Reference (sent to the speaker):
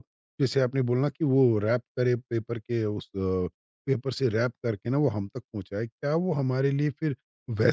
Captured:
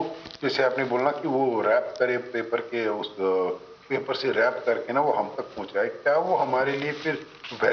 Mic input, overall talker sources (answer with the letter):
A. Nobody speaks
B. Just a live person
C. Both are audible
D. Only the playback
D